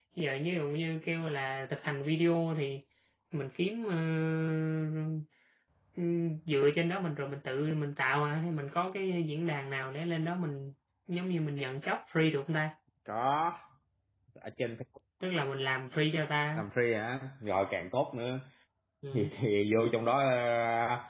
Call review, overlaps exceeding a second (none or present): none